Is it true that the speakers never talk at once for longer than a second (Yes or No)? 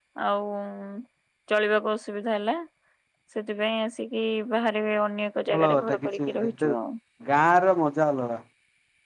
No